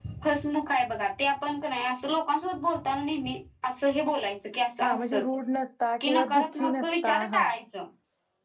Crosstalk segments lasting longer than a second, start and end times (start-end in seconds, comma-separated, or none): 6.1-7.5